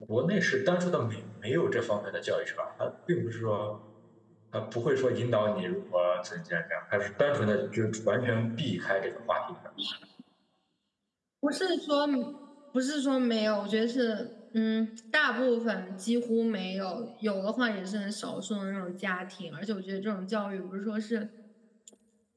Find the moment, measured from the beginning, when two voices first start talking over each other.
none

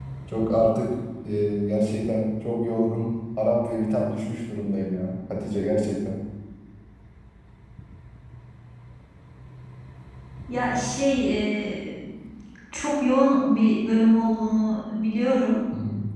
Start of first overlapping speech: none

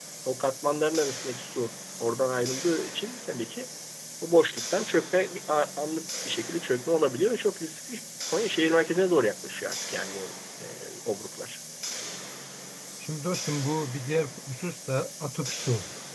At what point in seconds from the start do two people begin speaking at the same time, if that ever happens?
none

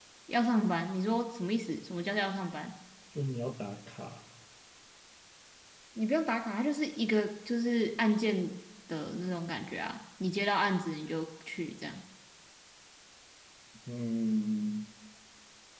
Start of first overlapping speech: none

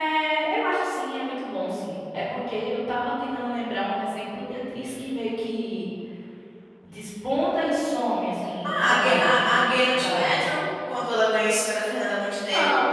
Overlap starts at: 8.6 s

